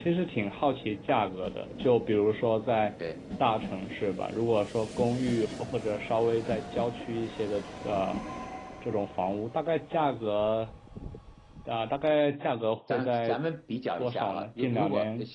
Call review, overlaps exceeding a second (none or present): present